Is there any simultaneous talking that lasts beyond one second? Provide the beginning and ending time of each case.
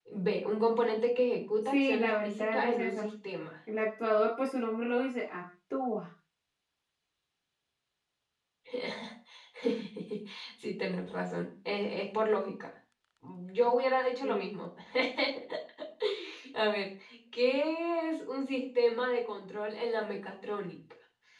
1.6-3.0

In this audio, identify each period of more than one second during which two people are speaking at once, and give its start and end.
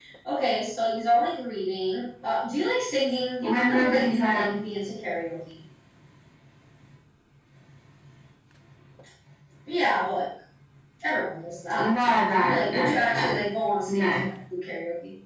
3.4-4.6, 11.8-13.4

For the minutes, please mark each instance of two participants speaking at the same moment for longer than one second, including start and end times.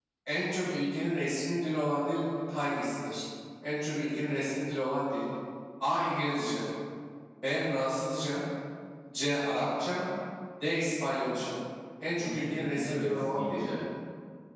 12.2-13.6

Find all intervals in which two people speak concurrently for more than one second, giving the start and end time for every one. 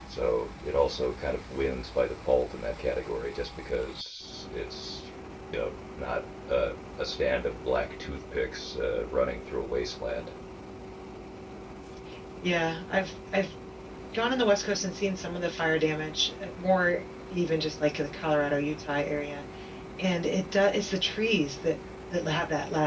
none

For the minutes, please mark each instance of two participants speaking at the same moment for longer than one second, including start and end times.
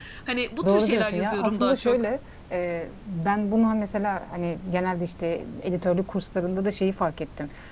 0.7-2.0

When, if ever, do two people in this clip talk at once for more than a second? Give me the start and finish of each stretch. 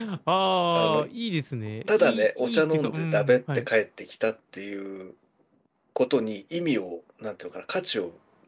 1.9-3.7

